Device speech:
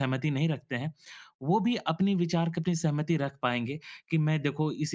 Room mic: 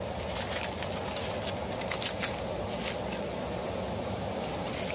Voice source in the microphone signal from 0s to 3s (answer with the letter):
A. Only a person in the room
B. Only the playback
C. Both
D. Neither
D